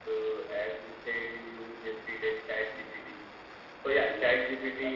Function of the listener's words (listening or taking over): listening